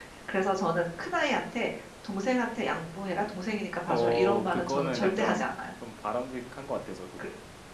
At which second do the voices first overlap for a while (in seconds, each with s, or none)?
3.9 s